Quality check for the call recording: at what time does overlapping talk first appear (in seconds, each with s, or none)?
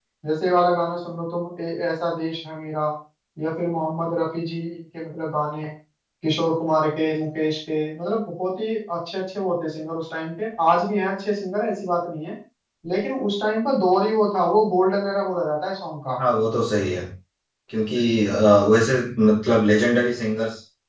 none